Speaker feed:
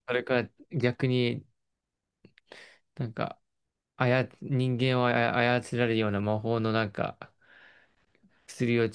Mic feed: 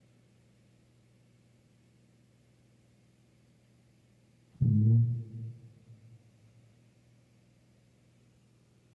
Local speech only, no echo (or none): うん